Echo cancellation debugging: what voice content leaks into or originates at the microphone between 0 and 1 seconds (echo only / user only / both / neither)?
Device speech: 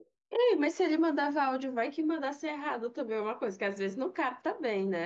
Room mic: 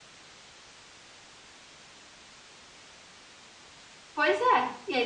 neither